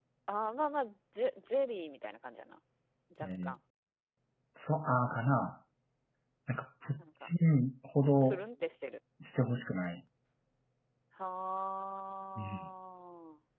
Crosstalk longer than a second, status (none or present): none